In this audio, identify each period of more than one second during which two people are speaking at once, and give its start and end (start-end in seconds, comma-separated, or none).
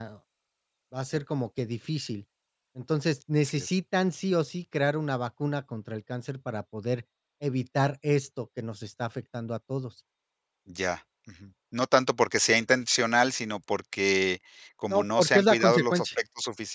14.9-16.1